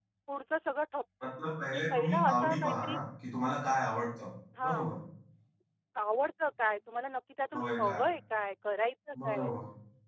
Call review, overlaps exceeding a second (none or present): present